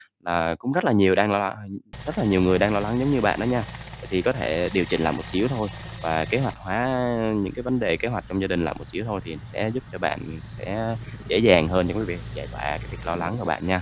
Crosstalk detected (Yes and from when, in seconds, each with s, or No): No